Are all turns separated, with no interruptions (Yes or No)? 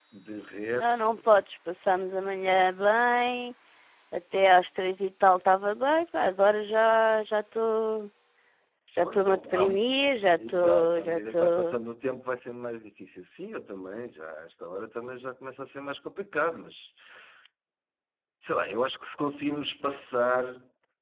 No